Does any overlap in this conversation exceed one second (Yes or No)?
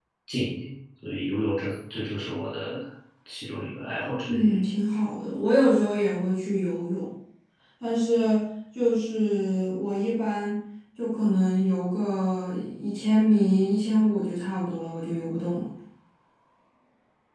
No